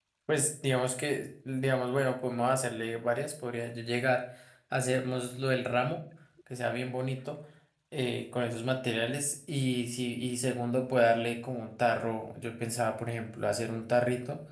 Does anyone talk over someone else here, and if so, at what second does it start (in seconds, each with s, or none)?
none